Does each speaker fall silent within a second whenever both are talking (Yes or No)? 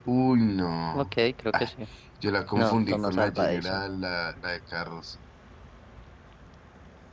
No